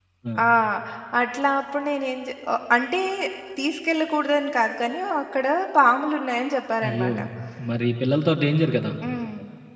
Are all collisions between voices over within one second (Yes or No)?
Yes